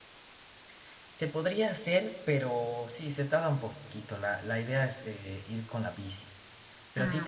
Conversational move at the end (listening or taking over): listening